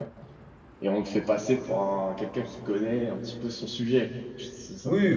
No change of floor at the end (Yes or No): No